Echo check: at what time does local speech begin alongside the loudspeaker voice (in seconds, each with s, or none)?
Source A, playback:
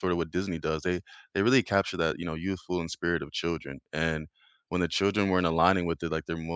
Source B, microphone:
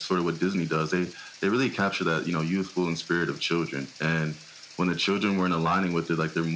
none